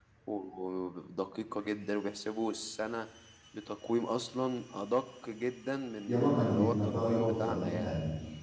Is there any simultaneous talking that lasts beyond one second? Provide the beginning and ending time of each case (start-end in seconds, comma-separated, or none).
6.1-7.9